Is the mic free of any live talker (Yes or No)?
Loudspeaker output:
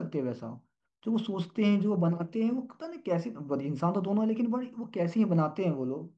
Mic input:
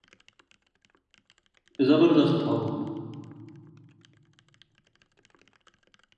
No